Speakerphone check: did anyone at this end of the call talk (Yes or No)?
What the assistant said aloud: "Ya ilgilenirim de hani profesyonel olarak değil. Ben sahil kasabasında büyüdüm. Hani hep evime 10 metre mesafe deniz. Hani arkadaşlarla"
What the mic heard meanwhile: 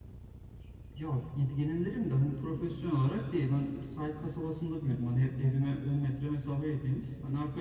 No